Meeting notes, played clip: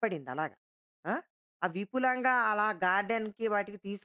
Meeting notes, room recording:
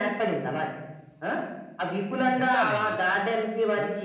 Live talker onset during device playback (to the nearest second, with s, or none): 2 s